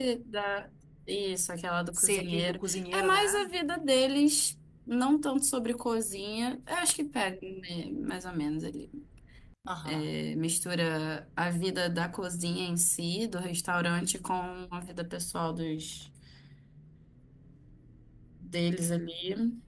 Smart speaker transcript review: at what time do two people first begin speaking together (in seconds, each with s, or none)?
1.9 s